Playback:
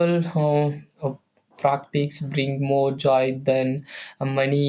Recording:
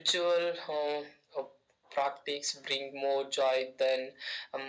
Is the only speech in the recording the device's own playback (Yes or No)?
Yes